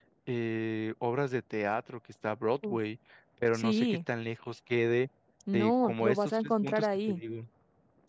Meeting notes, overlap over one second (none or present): present